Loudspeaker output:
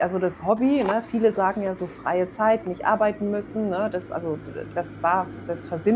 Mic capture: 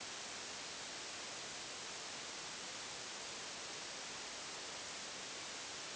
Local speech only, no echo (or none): none